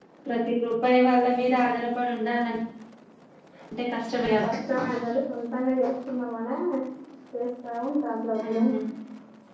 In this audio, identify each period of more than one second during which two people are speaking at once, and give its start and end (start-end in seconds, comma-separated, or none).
none